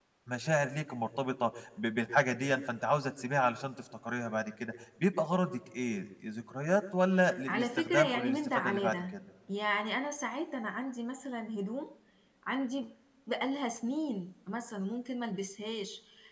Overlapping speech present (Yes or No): Yes